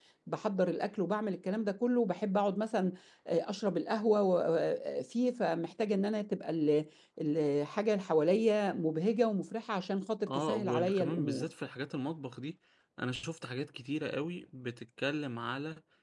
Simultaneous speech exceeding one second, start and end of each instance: 10.3-11.5

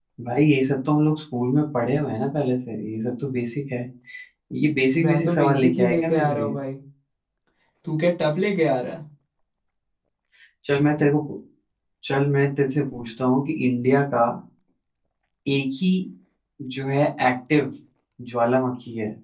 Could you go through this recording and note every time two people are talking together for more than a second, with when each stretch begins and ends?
5.0-6.5

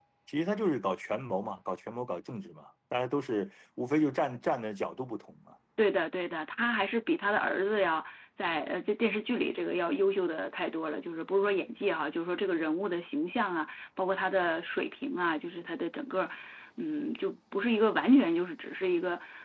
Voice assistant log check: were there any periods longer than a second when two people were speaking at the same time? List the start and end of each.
none

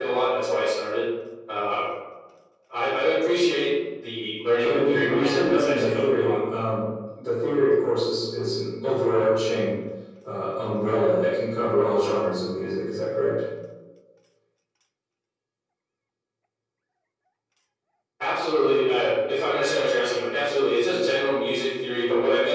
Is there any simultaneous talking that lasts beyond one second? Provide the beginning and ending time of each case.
4.6-6.4

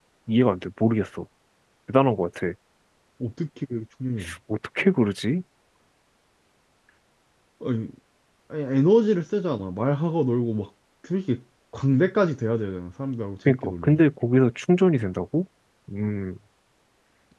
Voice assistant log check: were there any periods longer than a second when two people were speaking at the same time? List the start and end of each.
none

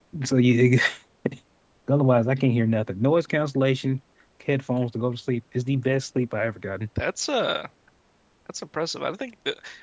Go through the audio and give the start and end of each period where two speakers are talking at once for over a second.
none

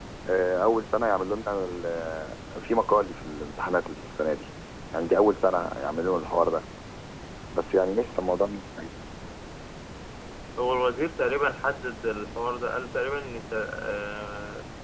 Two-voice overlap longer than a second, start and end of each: none

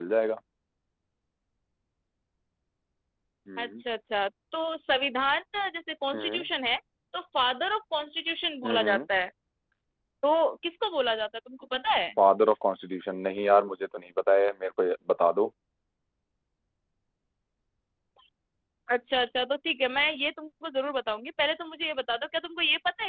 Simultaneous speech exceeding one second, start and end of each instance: none

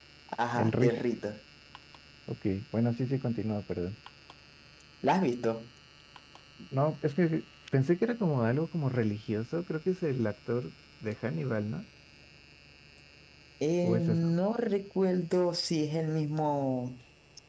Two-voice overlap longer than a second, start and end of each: none

